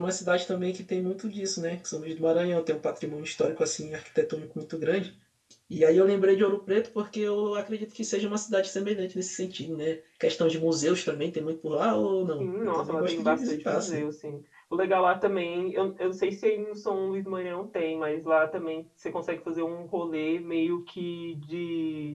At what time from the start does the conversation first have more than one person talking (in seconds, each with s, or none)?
12.4 s